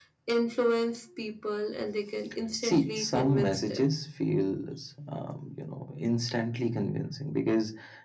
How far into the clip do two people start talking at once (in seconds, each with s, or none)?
2.6 s